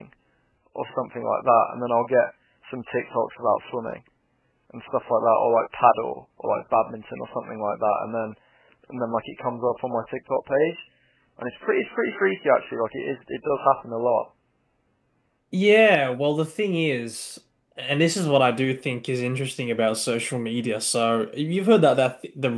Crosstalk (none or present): none